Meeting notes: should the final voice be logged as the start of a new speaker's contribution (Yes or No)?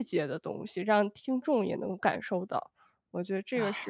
Yes